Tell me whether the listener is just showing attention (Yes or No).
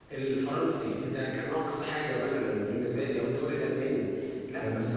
Yes